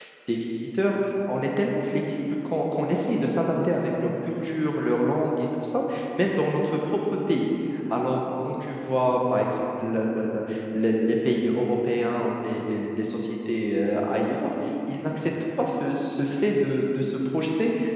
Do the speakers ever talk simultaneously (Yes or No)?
No